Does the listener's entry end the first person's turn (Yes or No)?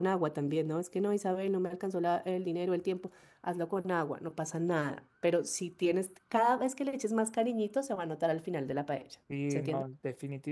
Yes